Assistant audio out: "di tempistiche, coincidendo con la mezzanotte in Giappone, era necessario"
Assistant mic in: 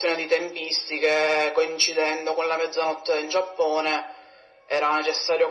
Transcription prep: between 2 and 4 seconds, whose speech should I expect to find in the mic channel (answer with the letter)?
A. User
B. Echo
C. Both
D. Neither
B